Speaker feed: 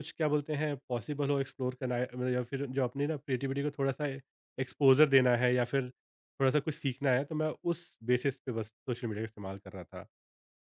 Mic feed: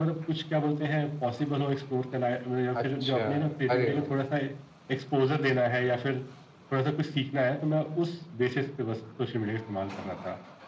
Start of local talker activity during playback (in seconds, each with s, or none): 2.8 s